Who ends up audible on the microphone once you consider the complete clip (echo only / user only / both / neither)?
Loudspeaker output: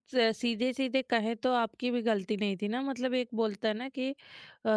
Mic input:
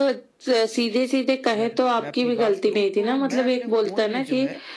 both